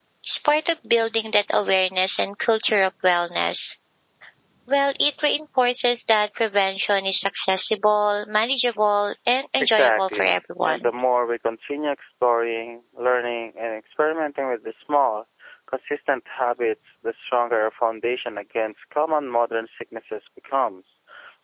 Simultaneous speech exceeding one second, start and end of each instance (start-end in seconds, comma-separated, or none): 9.6-10.8